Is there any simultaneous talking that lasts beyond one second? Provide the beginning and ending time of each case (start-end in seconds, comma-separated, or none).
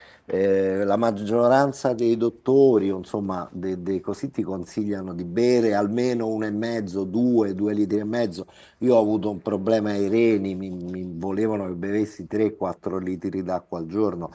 none